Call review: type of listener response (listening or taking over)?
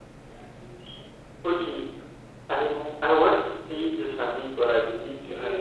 taking over